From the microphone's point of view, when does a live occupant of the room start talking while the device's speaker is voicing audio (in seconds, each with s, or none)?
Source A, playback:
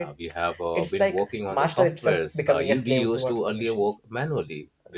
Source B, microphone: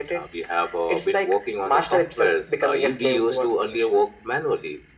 none